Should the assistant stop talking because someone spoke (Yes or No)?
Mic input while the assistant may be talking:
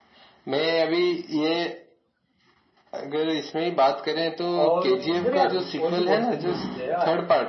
Yes